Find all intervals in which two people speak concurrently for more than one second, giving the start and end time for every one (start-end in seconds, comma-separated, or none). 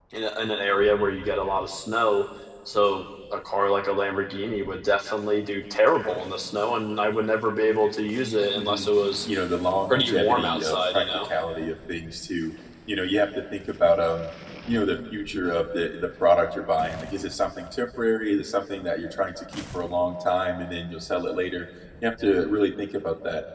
9.9-11.3